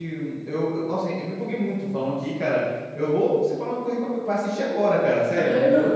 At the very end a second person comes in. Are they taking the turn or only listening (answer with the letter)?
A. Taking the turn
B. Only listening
A